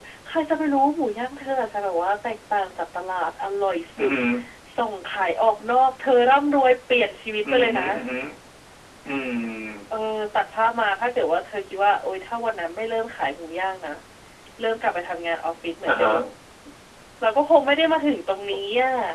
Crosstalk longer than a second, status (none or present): none